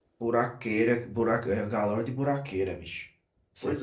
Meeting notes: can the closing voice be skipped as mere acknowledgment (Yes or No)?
Yes